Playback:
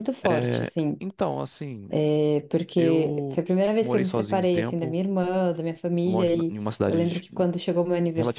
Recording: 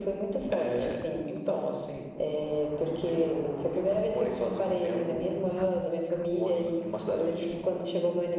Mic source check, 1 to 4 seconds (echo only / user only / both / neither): echo only